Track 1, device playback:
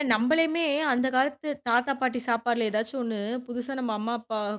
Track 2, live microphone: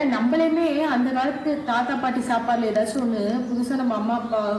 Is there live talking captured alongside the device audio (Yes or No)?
No